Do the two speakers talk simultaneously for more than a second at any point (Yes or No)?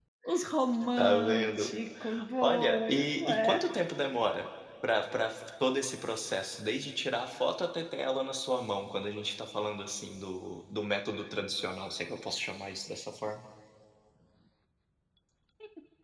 Yes